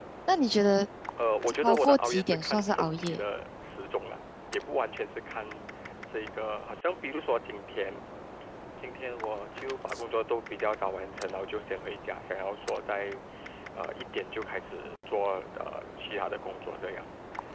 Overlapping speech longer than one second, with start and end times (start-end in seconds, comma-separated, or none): 1.6-3.2